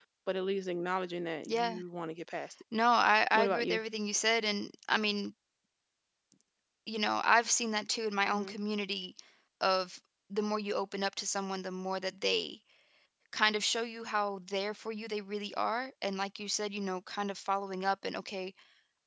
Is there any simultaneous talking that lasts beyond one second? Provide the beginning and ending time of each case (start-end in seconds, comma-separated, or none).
none